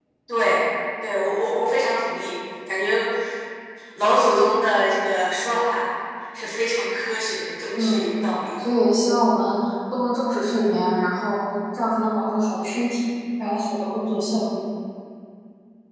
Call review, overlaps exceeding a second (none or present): none